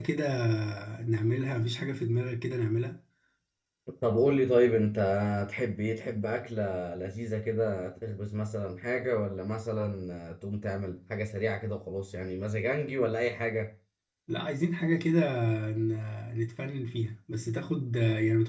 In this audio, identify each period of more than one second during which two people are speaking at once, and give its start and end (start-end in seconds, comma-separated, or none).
none